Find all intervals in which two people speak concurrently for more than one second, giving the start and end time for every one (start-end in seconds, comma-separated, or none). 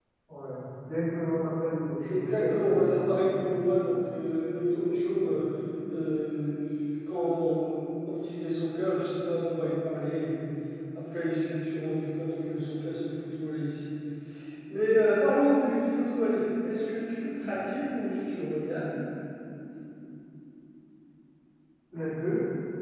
2.1-3.8